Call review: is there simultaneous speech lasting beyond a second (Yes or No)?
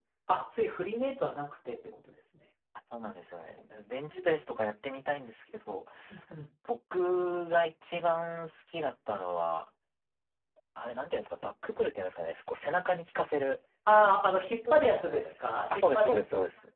Yes